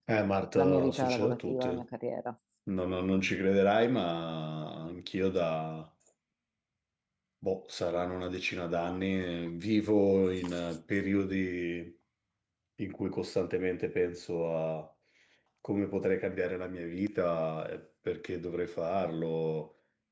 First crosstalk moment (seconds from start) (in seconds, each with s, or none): 0.6 s